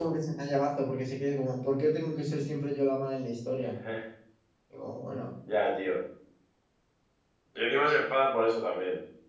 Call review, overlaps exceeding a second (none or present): none